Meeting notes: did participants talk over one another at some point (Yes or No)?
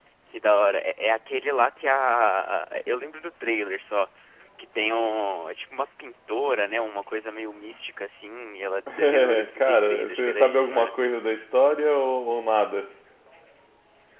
Yes